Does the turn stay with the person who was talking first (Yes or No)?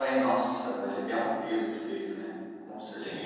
No